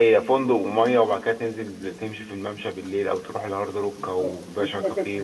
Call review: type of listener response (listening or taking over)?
taking over